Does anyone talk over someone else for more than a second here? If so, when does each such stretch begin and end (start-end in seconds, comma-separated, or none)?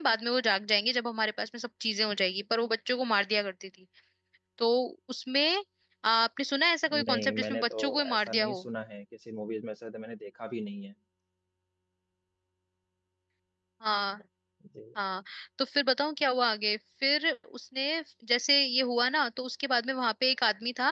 6.9-8.6